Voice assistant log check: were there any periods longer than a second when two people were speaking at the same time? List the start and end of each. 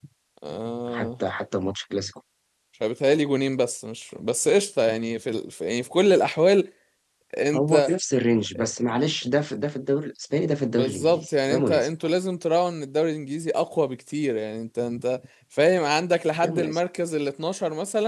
10.7-11.9

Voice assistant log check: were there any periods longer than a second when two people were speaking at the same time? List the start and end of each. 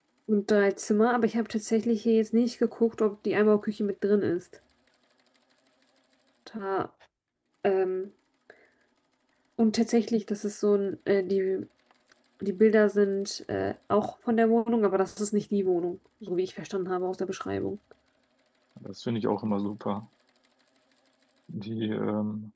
none

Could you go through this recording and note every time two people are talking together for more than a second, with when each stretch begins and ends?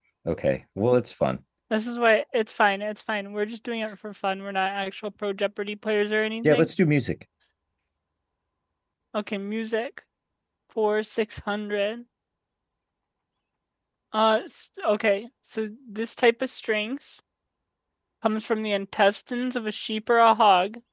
none

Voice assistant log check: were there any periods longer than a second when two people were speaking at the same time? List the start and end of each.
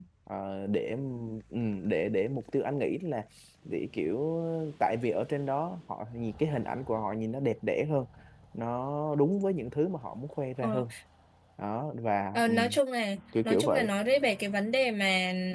none

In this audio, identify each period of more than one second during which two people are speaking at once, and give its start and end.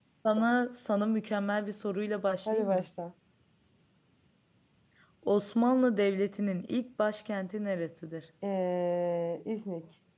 none

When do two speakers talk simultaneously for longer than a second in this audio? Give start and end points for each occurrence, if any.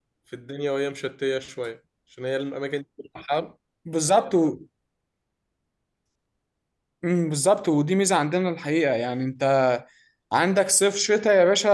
none

